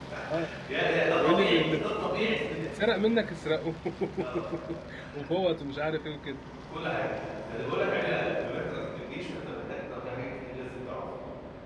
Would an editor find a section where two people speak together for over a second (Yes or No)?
Yes